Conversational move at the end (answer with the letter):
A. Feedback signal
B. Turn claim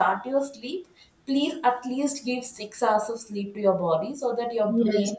B